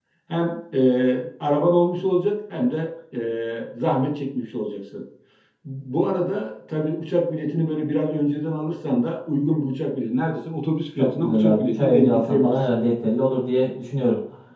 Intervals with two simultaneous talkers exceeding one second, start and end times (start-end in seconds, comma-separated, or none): 11.0-12.7